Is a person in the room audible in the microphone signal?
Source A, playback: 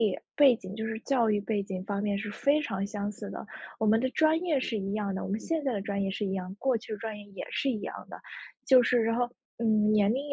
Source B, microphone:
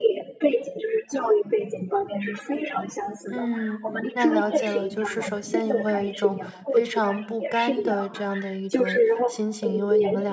Yes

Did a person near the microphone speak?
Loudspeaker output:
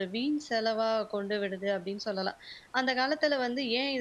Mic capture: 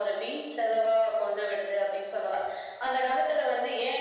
No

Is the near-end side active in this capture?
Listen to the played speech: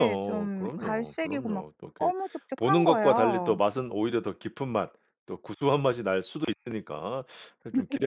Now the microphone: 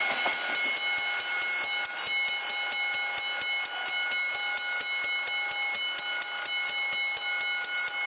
No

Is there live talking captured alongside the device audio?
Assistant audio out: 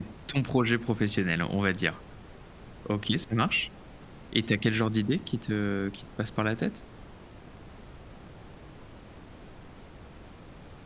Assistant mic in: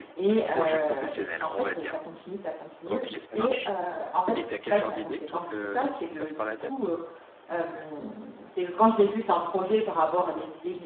Yes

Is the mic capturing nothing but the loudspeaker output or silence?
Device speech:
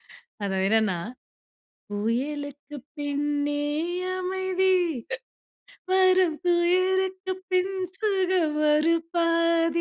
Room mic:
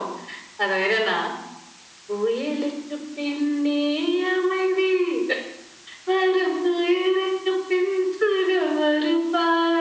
Yes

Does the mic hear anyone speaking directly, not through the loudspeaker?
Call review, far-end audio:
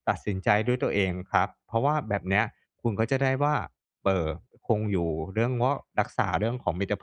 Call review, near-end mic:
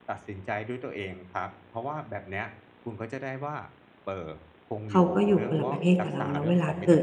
Yes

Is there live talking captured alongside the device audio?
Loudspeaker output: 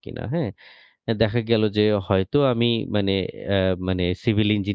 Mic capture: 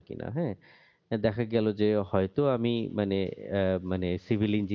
No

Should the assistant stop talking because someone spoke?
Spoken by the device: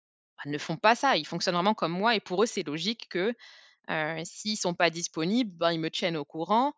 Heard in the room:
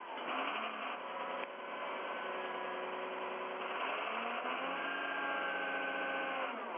No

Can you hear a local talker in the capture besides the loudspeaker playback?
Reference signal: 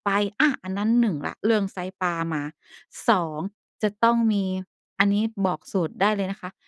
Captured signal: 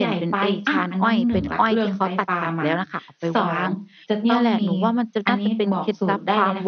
Yes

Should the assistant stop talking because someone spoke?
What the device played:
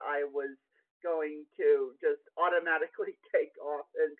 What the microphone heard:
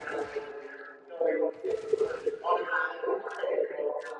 No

